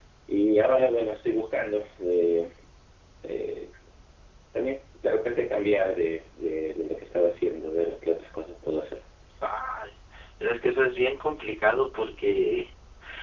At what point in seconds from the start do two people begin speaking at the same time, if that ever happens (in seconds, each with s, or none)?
none